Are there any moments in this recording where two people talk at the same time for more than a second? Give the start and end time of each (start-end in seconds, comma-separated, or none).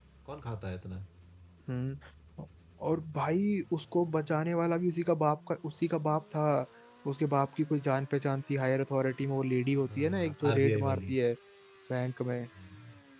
9.8-11.1